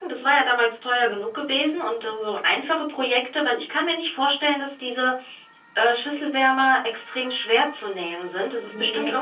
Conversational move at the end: listening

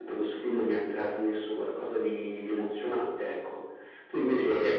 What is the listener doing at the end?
taking over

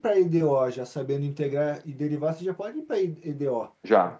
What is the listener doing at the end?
taking over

